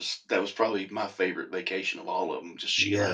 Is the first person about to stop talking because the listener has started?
Yes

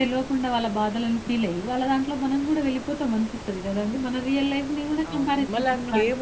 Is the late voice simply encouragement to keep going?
No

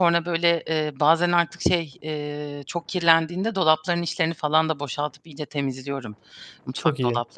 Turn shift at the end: No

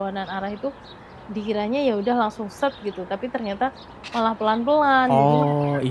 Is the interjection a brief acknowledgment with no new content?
No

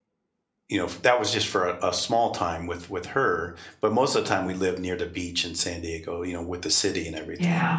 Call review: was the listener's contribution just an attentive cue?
No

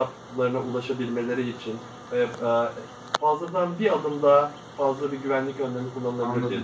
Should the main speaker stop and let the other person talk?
Yes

